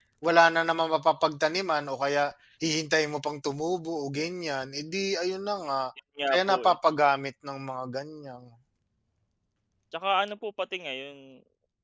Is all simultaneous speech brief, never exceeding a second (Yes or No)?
Yes